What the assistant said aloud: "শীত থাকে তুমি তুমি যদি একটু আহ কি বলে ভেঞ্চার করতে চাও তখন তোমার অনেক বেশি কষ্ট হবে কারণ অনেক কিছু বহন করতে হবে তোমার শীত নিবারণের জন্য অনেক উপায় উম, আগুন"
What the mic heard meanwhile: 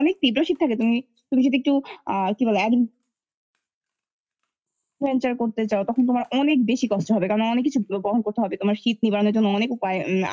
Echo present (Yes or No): Yes